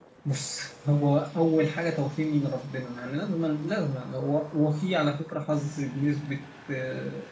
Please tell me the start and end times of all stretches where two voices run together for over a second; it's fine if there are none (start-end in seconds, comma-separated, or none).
none